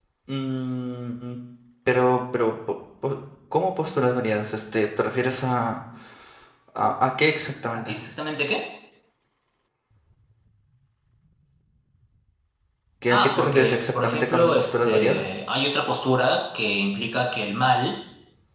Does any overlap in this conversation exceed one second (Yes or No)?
Yes